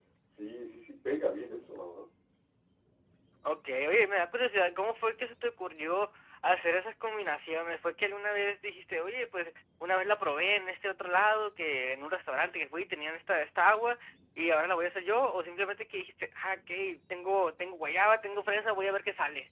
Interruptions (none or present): none